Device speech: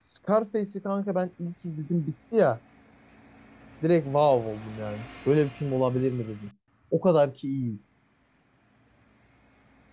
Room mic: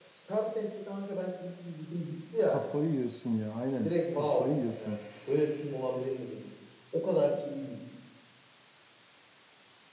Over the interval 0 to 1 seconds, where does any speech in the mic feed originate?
echo only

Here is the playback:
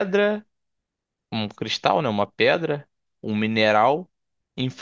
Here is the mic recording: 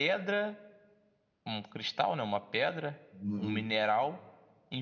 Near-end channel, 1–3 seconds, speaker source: echo only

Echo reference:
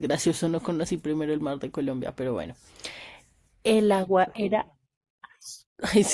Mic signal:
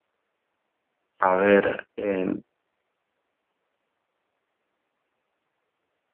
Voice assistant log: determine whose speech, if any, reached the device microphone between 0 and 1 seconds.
neither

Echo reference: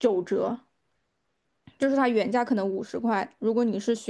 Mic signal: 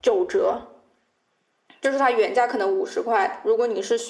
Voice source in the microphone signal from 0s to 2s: echo only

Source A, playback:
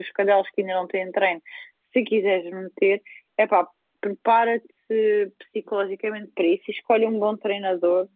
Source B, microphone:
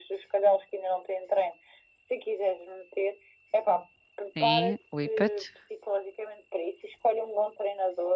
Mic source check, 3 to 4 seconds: echo only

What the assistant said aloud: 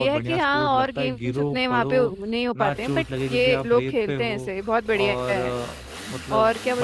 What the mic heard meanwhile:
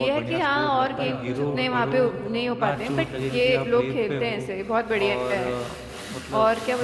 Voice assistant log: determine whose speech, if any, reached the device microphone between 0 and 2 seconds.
both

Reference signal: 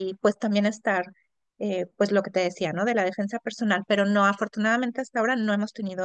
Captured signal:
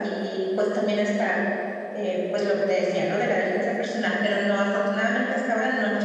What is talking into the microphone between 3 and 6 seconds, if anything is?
echo only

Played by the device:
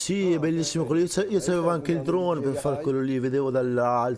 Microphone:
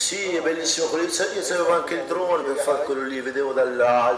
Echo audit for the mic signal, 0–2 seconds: echo only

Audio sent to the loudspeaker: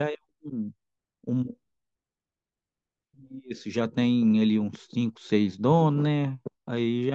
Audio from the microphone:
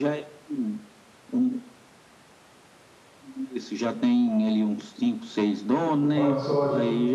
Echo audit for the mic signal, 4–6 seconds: echo only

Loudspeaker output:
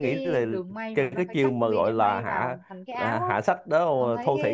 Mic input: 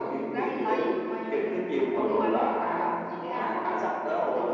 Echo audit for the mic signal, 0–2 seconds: both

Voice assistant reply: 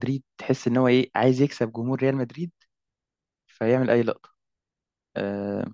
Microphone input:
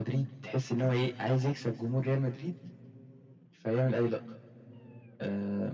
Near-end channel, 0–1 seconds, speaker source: echo only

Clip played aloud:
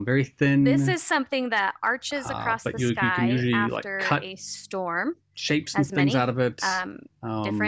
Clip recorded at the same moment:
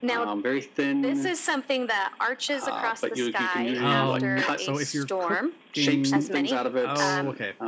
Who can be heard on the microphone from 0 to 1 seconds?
echo only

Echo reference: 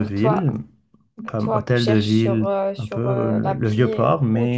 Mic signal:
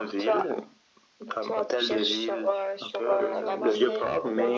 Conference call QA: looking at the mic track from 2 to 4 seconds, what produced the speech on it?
both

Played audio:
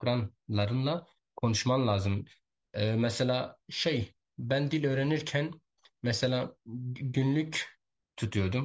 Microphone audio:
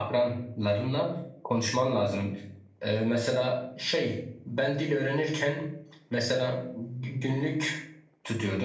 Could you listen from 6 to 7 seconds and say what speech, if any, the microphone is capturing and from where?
echo only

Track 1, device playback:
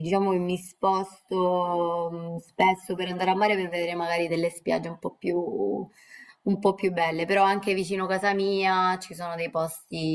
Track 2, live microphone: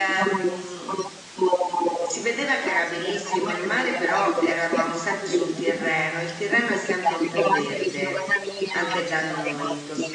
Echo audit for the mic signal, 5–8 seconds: both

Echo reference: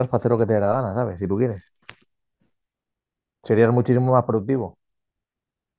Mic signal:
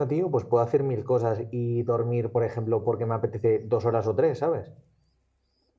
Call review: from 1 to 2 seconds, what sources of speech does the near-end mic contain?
user only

